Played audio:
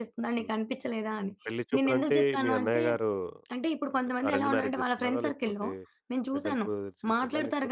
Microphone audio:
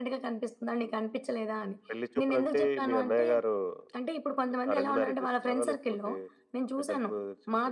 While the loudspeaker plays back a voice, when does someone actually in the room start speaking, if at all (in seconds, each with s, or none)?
none